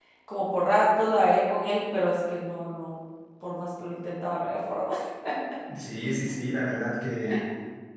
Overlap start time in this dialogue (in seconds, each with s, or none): none